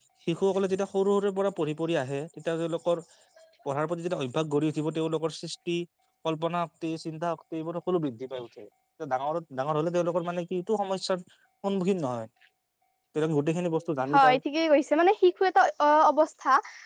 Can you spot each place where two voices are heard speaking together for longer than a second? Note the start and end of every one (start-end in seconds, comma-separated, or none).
none